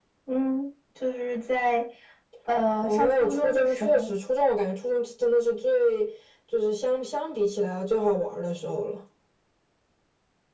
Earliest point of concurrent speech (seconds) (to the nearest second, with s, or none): 3 s